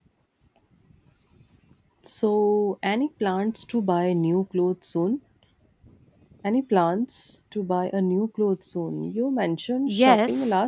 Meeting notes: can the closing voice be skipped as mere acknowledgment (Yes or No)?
No